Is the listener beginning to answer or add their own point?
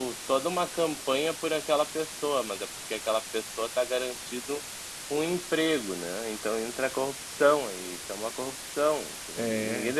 No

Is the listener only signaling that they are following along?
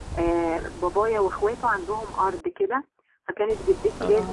Yes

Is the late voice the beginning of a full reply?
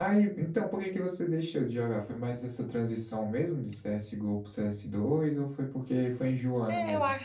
Yes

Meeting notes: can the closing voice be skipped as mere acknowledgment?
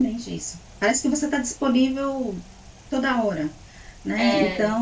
Yes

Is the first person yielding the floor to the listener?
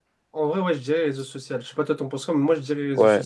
Yes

